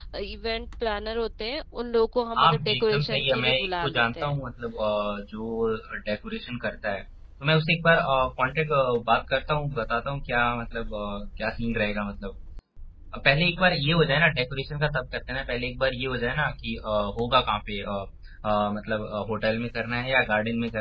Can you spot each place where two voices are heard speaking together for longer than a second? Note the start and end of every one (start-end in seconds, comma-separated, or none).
2.4-4.4